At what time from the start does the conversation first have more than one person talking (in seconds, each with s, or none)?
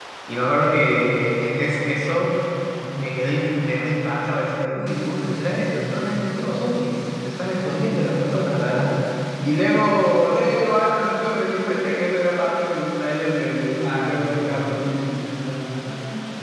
13.8 s